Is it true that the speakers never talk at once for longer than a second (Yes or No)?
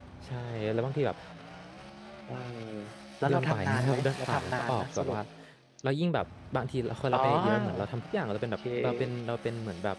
No